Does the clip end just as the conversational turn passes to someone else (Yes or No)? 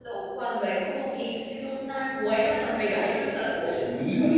Yes